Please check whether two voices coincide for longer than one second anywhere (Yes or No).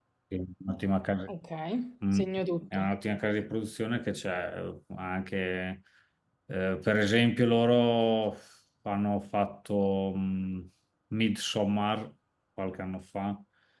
No